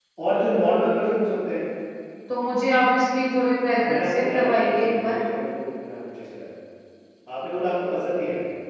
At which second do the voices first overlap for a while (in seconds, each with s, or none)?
3.7 s